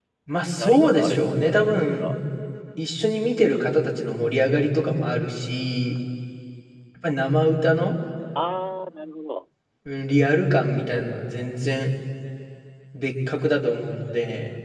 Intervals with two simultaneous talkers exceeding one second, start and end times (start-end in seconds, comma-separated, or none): 0.6-2.1